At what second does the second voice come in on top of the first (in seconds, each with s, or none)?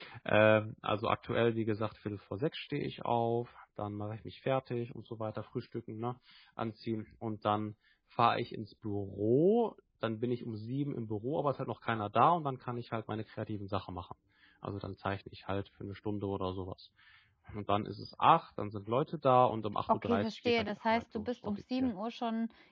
19.9 s